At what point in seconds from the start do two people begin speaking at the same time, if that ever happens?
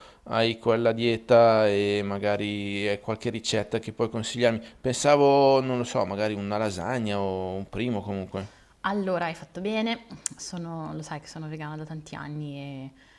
none

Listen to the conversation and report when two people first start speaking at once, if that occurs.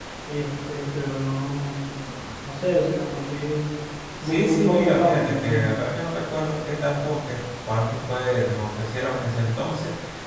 4 s

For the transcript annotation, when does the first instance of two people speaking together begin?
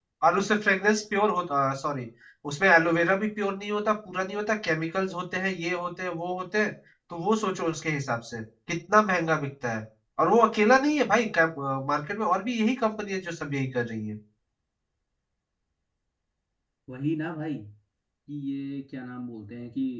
none

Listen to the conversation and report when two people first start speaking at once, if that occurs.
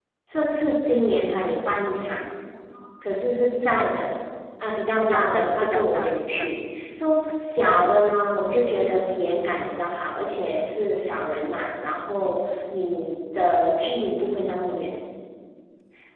5 s

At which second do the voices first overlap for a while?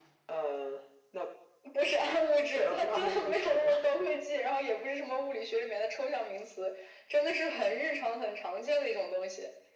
3 s

